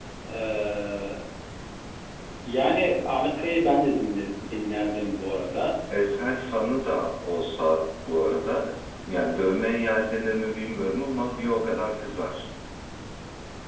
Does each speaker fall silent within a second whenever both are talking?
Yes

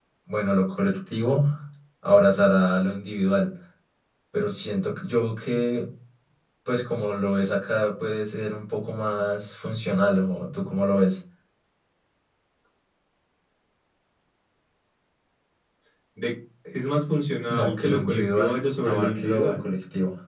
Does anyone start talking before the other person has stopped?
Yes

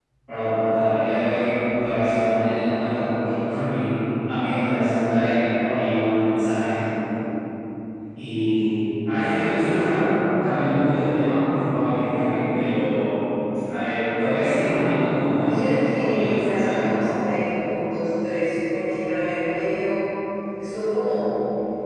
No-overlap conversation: No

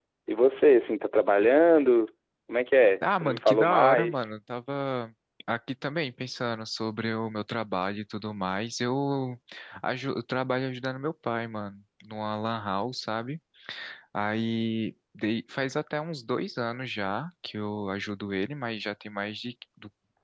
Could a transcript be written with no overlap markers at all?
No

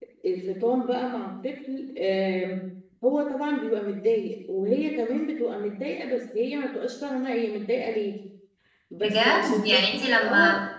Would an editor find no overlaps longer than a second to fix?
No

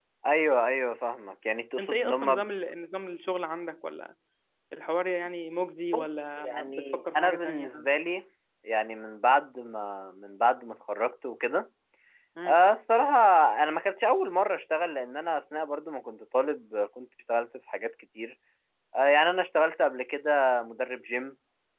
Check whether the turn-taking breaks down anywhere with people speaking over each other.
Yes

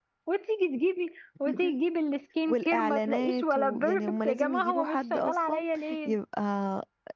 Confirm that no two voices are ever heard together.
No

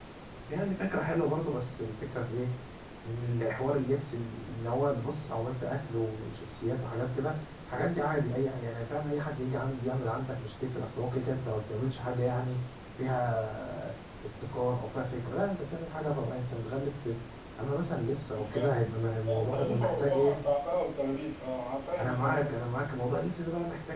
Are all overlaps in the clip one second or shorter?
No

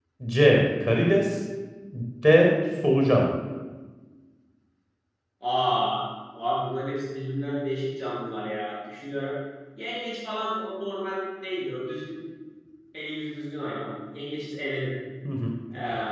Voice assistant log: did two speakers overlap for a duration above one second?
No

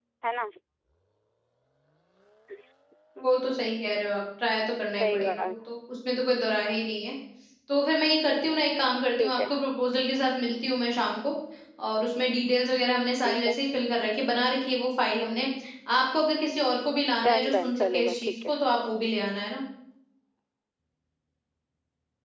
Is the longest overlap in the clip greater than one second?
Yes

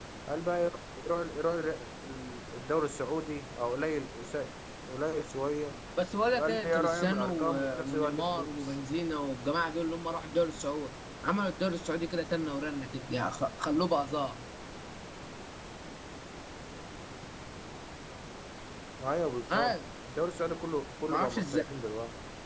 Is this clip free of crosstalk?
No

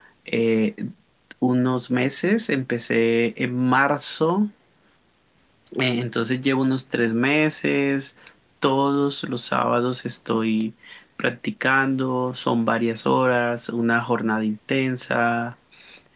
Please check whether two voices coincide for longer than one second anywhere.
No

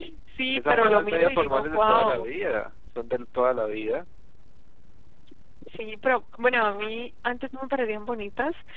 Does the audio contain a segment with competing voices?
Yes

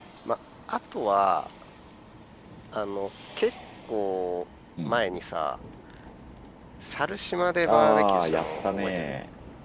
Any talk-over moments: Yes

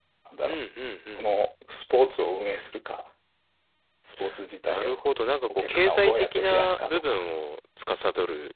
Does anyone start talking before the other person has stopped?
Yes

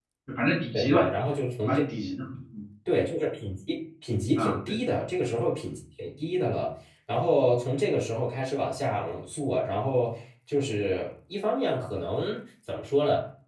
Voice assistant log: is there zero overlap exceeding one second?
Yes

